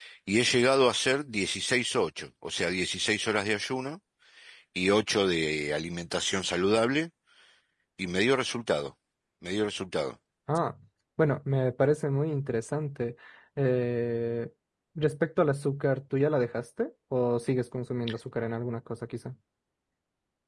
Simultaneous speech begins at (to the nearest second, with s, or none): none